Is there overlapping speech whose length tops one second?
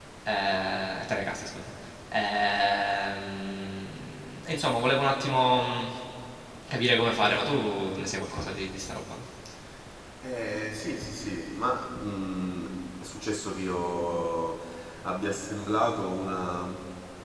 No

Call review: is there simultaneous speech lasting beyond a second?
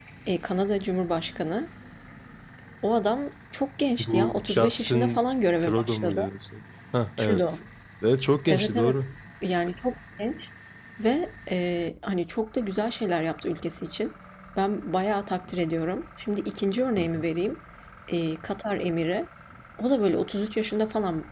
Yes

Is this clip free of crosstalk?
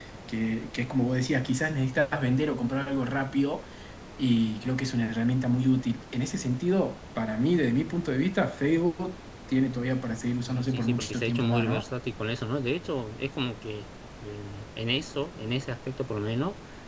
No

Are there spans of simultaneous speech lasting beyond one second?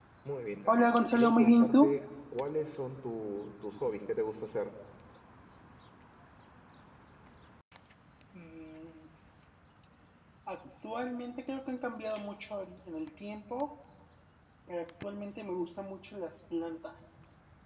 Yes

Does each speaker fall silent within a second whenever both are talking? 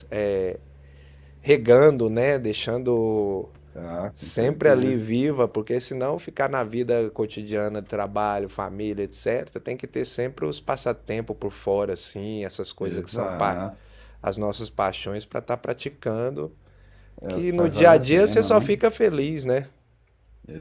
No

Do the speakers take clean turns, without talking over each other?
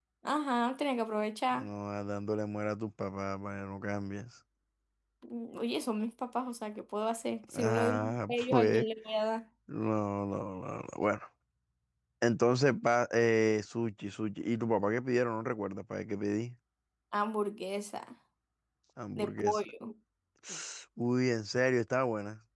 No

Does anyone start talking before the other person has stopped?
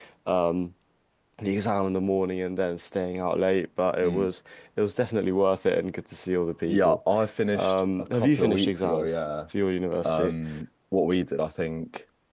Yes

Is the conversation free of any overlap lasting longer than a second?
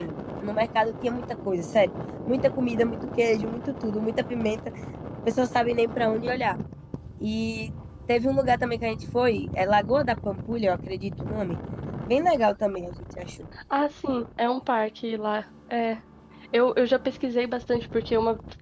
Yes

